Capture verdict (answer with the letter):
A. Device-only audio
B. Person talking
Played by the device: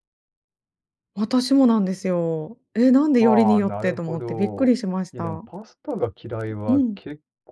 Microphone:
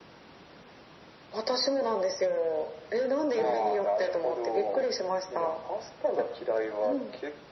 A